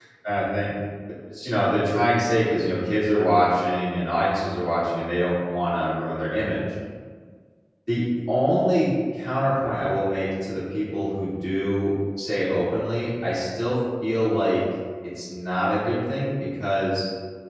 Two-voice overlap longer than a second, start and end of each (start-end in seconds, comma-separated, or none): none